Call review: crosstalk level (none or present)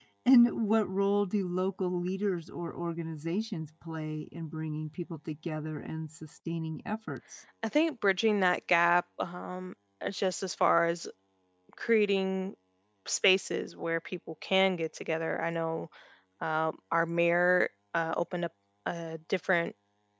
none